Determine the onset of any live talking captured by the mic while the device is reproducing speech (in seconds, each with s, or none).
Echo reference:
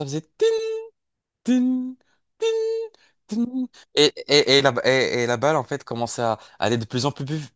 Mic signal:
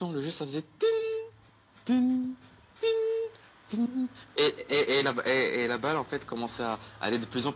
none